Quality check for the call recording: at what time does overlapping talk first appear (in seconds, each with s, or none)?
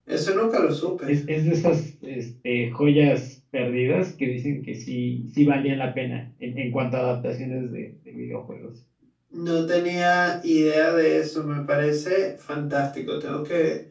none